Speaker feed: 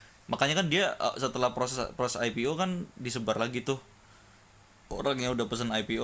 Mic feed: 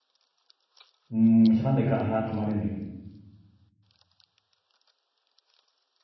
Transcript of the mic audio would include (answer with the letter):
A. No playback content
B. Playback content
A